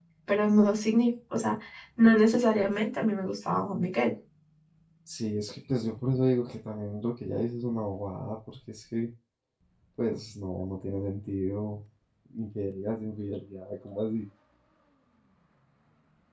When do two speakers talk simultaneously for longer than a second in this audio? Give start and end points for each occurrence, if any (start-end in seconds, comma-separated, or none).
none